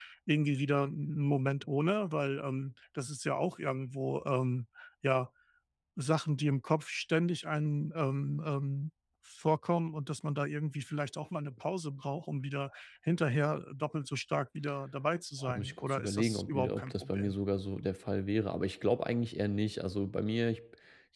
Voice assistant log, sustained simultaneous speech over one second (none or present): present